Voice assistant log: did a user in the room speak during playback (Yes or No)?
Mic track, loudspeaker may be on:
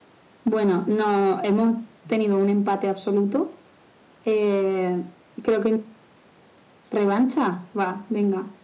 No